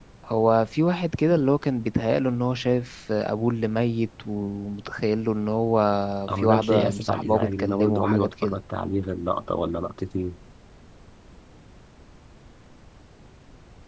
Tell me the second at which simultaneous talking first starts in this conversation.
6.4 s

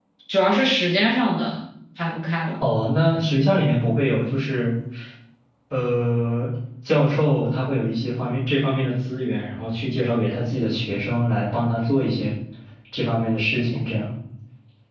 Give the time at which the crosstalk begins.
none

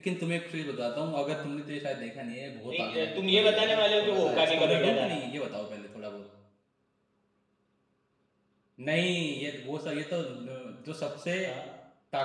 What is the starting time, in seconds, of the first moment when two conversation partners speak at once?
2.7 s

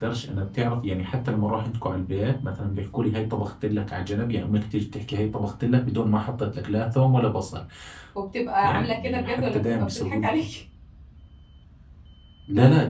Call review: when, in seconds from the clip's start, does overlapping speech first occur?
8.6 s

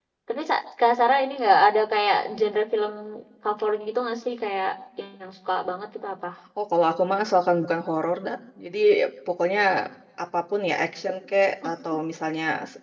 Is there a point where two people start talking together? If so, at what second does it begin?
none

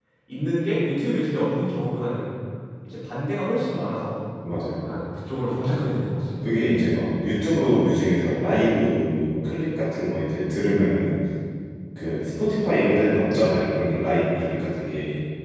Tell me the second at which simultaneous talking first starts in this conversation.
none

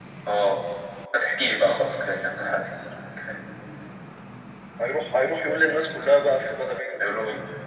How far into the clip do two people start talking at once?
none

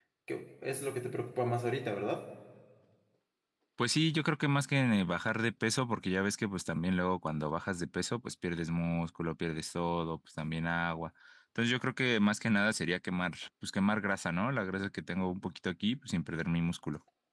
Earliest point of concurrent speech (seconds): none

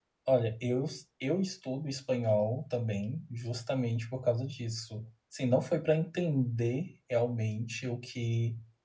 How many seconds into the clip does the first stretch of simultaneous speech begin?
none

